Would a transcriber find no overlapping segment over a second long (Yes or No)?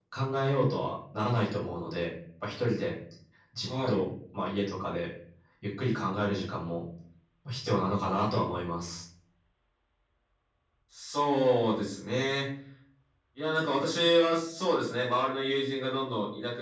Yes